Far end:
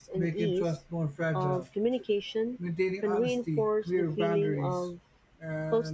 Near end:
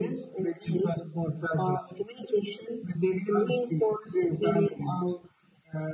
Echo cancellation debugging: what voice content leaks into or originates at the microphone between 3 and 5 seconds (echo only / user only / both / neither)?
echo only